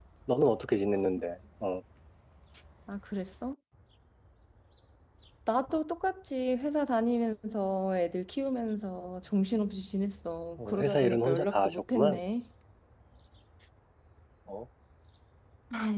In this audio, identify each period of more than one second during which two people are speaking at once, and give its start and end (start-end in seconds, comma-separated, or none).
10.7-12.2